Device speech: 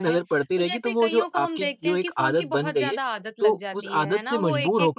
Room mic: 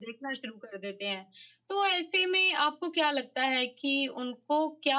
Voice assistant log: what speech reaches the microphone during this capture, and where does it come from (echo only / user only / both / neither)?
user only